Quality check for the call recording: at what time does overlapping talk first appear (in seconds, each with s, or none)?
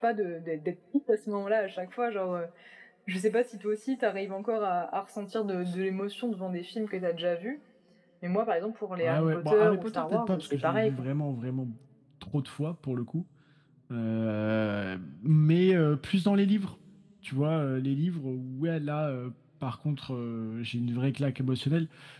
9.0 s